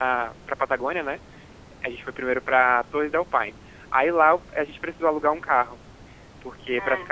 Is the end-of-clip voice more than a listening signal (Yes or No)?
No